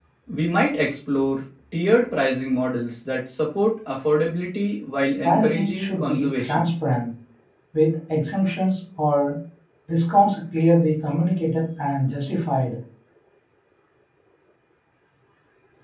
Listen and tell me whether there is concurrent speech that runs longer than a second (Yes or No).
Yes